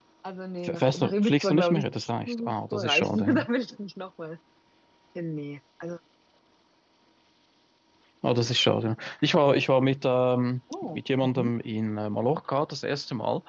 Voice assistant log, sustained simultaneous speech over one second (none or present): present